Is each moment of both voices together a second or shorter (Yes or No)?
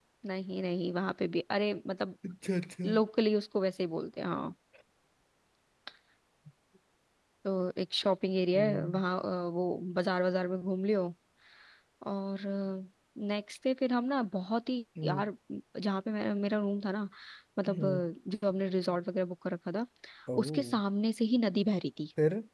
Yes